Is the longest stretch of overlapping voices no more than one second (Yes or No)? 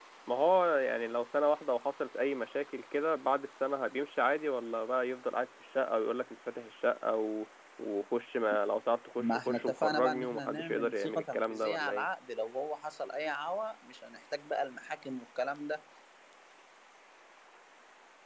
No